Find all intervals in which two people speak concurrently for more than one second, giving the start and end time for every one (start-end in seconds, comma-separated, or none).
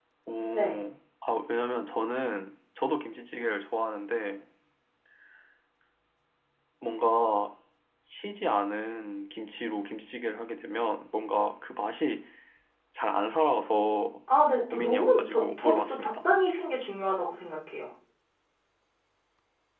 14.7-16.3